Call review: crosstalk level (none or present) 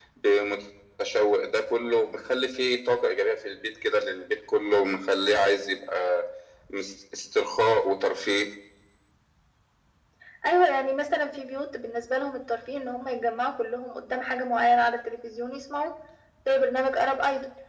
none